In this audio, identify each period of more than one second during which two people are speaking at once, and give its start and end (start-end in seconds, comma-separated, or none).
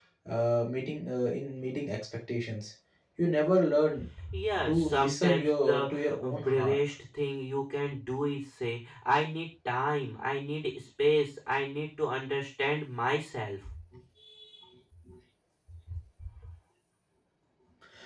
4.7-6.8